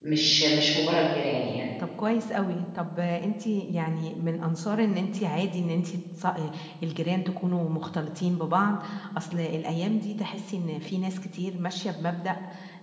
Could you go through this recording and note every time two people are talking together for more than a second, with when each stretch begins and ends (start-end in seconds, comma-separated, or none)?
none